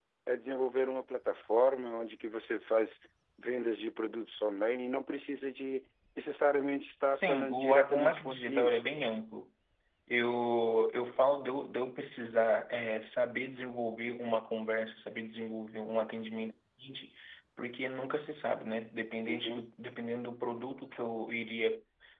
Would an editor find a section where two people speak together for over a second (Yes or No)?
Yes